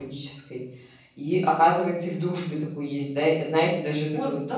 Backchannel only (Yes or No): No